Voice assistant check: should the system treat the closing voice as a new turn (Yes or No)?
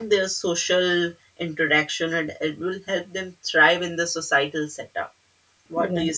Yes